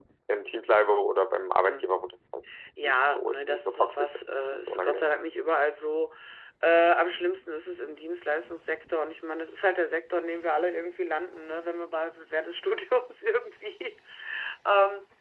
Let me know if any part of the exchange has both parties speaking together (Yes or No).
Yes